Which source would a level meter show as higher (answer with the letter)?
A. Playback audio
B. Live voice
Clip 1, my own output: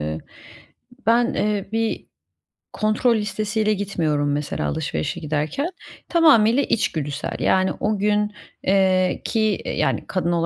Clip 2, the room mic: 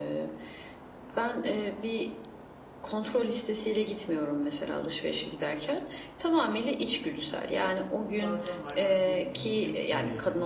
A